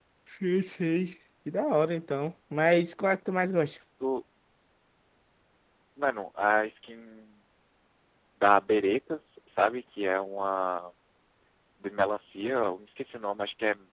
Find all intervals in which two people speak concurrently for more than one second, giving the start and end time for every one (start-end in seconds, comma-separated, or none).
none